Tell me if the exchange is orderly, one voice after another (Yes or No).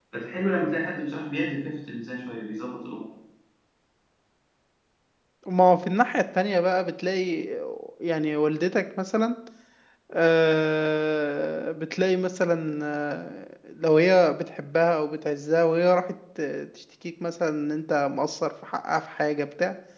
Yes